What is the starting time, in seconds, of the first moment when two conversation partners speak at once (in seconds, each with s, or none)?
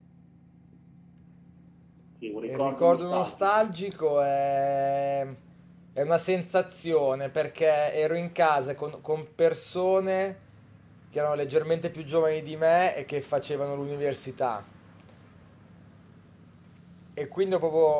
2.5 s